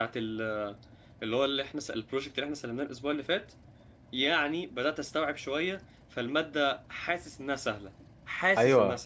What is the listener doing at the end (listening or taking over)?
taking over